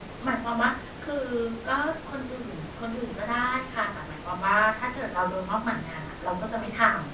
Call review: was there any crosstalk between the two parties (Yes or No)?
No